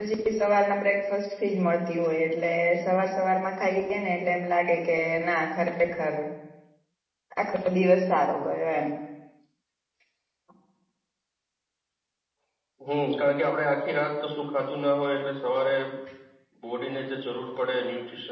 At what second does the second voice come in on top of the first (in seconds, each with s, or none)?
none